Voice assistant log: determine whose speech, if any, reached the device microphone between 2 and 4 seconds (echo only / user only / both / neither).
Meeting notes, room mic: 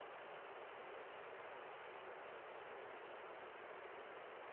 neither